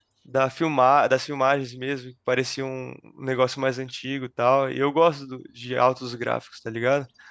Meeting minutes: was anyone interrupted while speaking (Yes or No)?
No